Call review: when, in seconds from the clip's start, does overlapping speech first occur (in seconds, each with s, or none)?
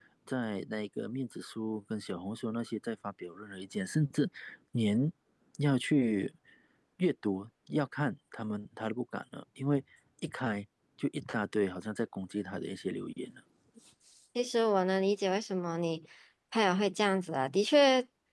none